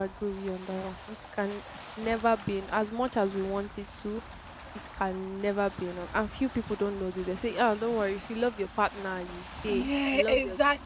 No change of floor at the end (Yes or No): No